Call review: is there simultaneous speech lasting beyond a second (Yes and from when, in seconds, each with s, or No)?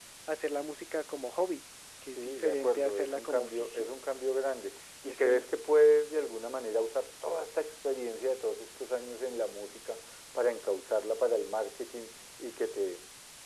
Yes, from 2.2 s